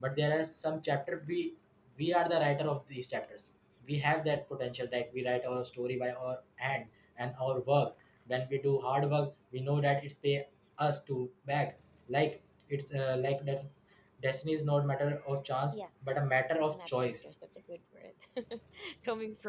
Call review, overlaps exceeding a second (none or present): present